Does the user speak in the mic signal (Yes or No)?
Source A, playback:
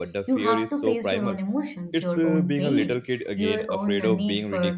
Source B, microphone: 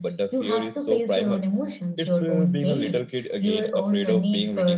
No